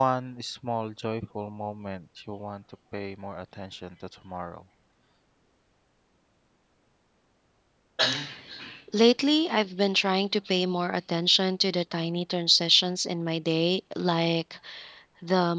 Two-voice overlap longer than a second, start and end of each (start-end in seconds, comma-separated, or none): none